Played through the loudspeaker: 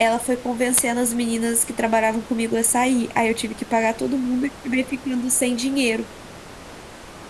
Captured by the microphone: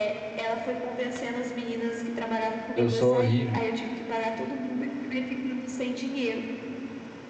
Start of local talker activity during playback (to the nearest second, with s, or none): 3 s